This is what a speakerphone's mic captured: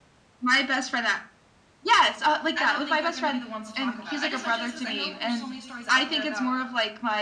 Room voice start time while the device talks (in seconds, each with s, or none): 2.6 s